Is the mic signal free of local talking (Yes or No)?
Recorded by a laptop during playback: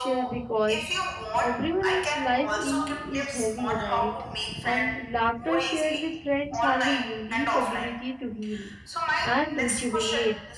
No